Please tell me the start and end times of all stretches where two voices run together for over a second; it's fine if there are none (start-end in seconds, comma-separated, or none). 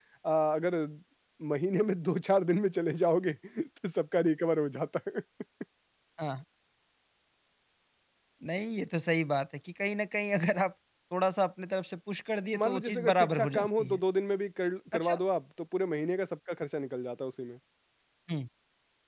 12.6-14.0